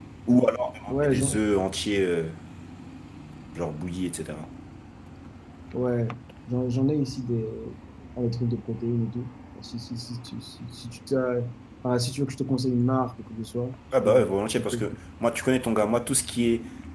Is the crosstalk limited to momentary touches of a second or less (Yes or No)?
Yes